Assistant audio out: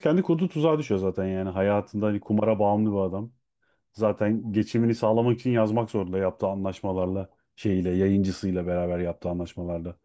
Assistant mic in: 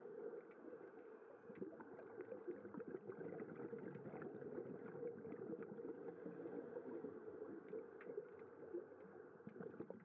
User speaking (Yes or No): No